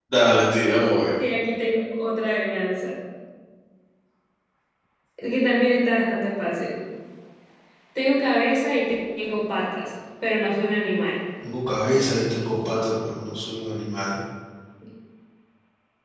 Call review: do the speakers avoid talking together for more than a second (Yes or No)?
Yes